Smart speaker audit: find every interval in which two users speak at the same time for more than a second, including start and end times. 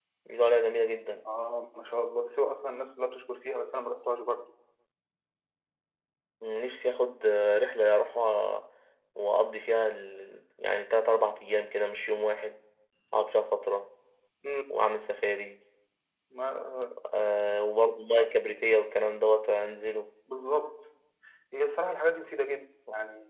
none

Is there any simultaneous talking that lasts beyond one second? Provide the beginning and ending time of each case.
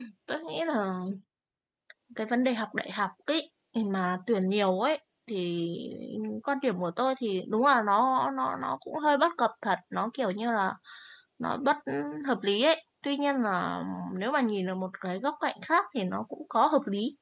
none

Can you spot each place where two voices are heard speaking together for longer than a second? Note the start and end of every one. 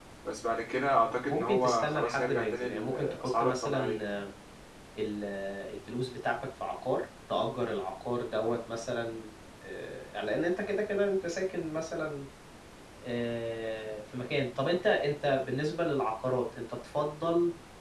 1.3-4.2

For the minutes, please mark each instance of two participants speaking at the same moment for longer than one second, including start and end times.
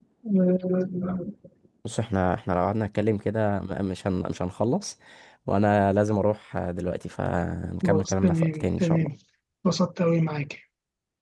7.8-9.1

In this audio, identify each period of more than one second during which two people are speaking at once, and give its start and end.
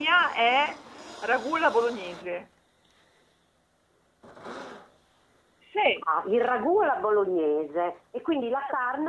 none

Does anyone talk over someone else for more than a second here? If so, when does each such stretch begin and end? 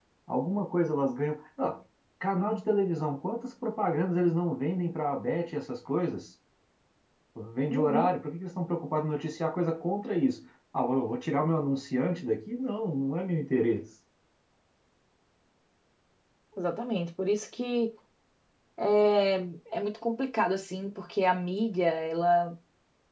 none

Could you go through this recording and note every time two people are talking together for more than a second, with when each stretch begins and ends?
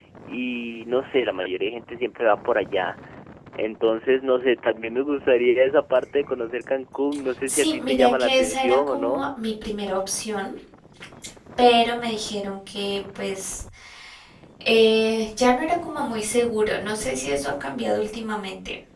7.5-9.2

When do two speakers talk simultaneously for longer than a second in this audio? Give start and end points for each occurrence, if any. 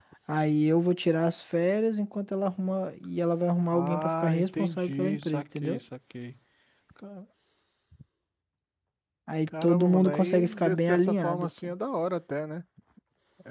3.7-5.8, 9.5-11.7

